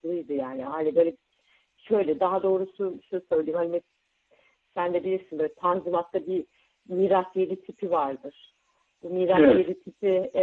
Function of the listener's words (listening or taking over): listening